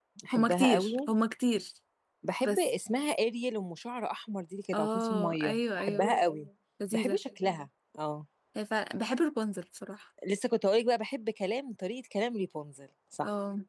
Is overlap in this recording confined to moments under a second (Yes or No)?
No